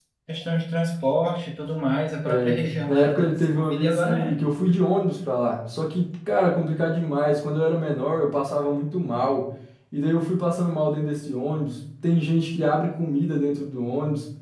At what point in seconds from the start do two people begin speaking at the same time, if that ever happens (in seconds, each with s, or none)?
2.2 s